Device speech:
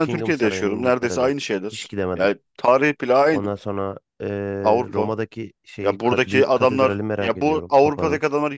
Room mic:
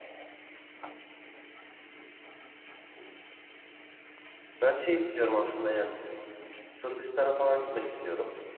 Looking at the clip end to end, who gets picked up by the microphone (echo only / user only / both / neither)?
user only